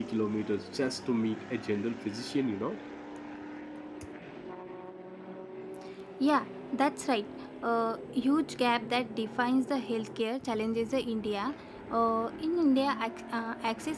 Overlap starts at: none

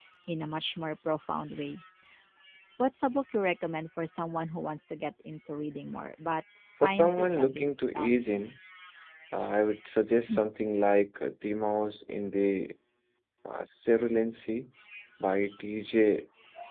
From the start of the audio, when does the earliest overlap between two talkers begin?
6.8 s

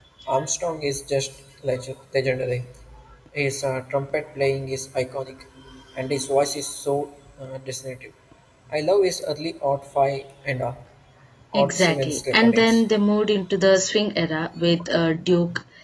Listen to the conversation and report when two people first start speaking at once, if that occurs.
11.5 s

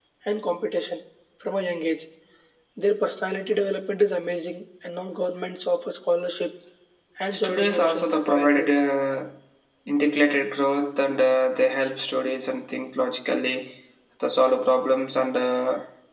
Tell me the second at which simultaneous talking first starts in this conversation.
7.3 s

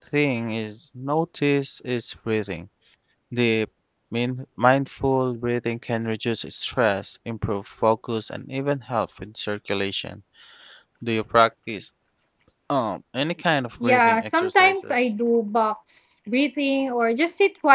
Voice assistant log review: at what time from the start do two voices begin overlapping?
13.8 s

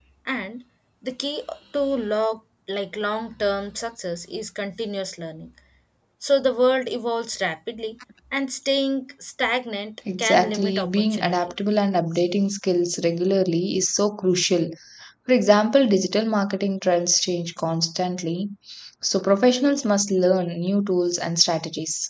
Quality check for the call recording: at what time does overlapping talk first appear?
10.1 s

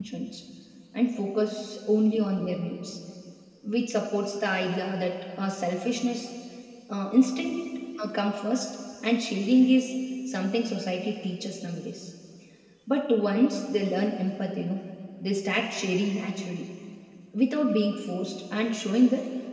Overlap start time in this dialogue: none

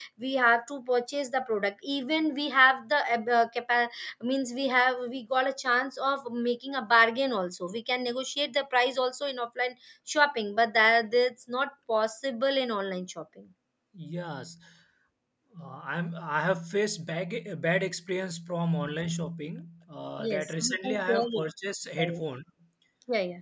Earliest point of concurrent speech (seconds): 20.2 s

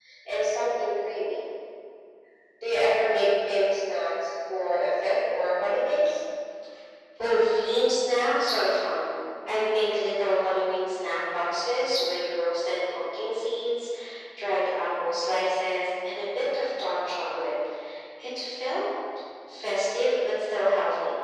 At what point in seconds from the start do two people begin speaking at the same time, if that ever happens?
none

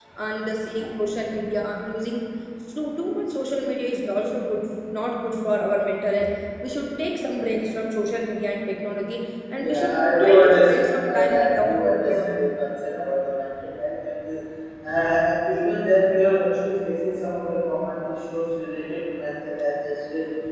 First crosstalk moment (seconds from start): 9.6 s

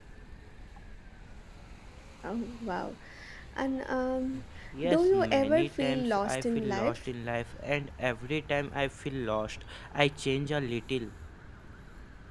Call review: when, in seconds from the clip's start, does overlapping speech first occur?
4.8 s

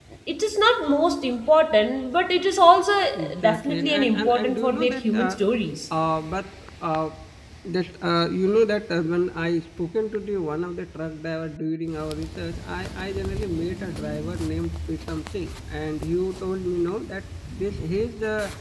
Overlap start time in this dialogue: 3.4 s

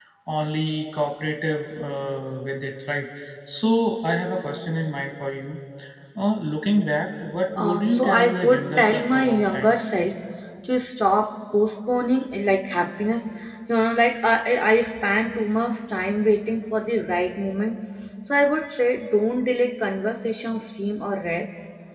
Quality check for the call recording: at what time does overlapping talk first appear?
7.6 s

